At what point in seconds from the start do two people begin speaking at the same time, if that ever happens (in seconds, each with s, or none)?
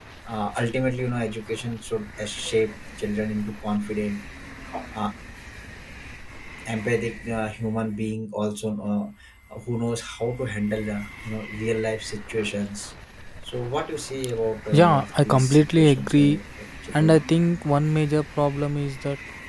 14.7 s